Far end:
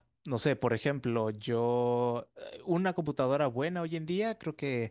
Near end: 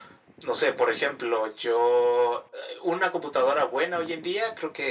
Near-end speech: none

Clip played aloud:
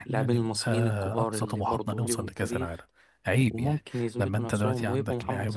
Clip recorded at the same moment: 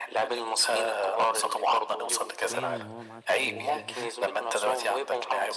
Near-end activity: present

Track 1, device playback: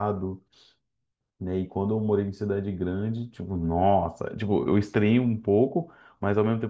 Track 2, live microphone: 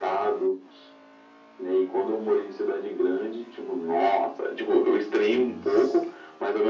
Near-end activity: present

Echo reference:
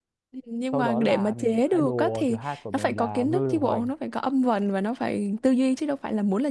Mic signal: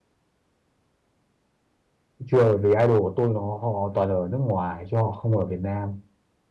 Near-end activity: present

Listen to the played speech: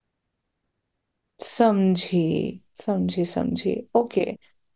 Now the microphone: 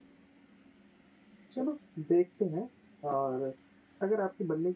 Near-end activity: present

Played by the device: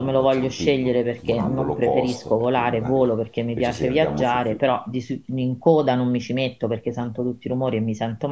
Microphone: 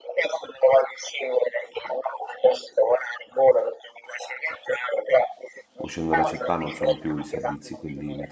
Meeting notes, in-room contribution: present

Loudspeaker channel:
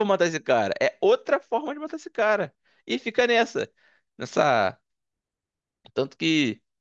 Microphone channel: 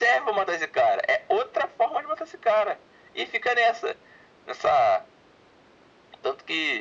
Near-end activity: none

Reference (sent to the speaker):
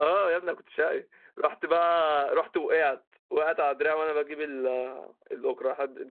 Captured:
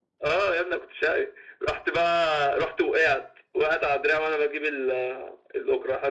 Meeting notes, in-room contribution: none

